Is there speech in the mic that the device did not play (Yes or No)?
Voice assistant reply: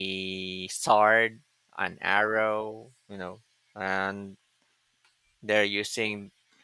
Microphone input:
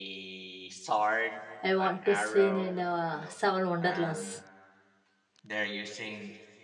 Yes